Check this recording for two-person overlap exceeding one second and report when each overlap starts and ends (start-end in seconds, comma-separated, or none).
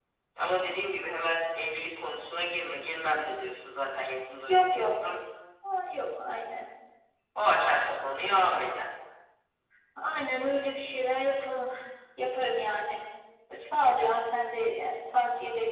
none